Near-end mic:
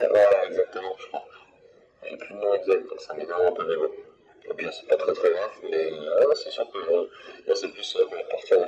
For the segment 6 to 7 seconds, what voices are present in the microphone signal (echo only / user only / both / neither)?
echo only